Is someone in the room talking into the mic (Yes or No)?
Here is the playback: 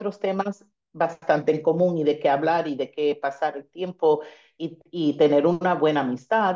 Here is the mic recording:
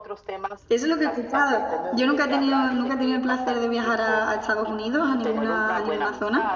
Yes